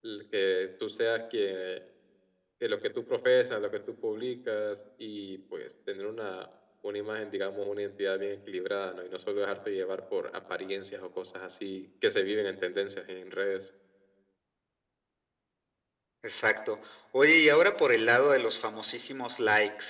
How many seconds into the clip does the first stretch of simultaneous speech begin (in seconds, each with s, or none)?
none